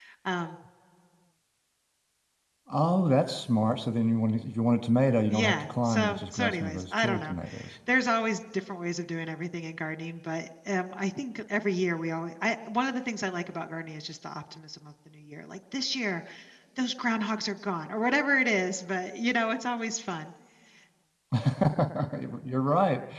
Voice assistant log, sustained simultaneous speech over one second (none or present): present